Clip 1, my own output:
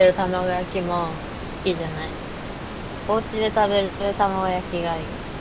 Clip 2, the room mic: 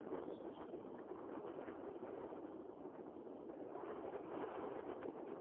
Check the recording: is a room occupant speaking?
No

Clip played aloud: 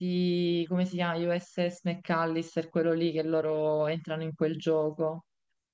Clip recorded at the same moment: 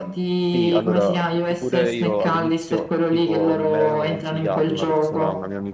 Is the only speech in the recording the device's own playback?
No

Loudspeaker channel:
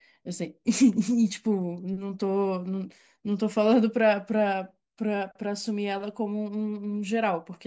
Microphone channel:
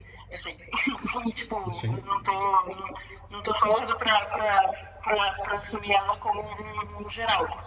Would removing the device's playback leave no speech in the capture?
No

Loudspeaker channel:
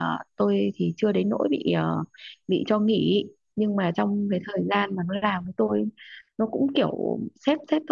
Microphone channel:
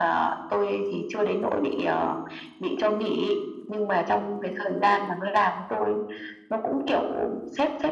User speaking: No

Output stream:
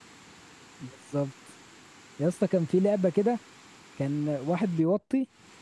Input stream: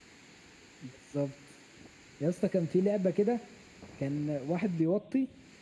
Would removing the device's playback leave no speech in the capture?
Yes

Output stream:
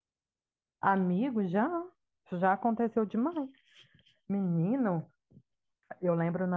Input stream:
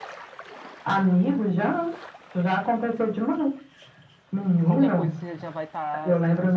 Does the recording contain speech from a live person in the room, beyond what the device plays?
Yes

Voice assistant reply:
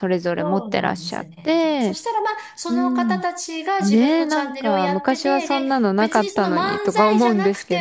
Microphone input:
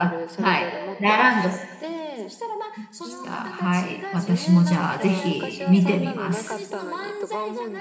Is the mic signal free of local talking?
No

